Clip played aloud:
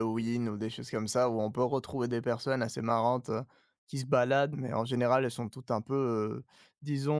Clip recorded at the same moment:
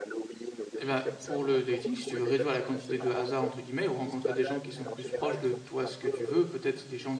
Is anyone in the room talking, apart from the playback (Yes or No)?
Yes